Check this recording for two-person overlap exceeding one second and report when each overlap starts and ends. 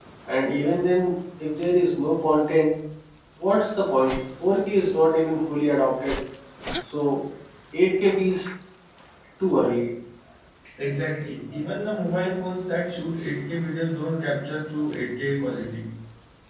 none

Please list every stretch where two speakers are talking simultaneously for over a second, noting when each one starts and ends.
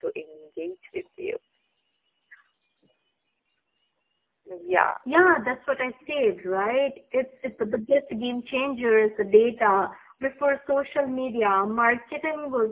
none

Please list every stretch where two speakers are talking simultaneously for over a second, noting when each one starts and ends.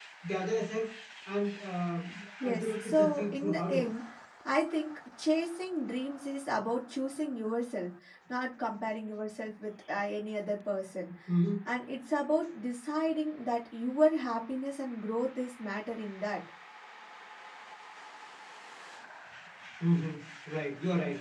2.4-3.9

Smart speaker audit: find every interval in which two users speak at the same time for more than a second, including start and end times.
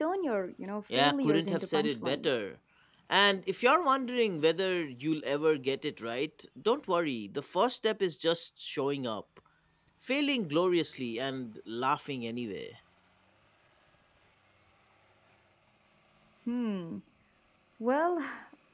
0.9-2.3

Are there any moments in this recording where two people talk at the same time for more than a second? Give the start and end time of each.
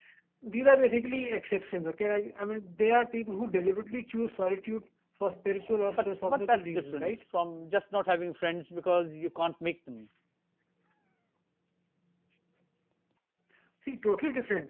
5.9-7.1

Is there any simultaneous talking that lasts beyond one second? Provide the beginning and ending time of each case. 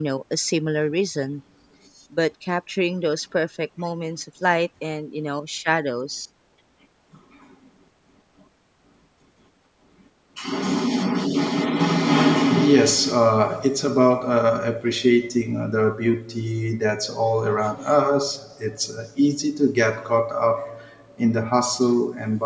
none

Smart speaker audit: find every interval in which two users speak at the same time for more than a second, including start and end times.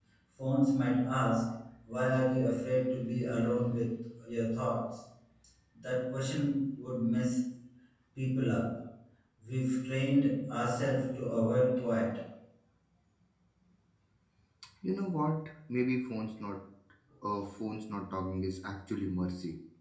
none

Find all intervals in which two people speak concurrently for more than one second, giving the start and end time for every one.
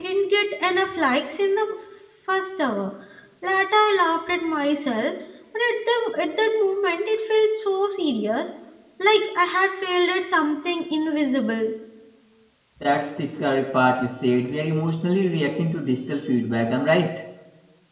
none

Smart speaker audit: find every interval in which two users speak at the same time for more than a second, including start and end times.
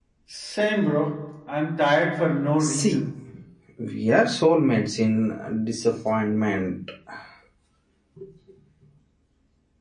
none

